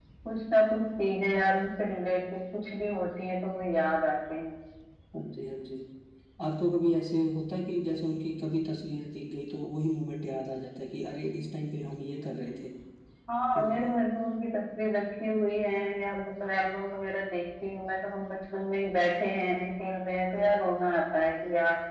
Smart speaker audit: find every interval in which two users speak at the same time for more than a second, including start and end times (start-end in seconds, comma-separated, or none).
none